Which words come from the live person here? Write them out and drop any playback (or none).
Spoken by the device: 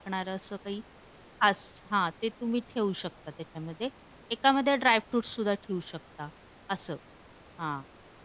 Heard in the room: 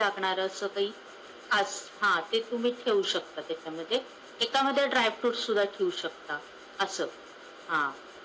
none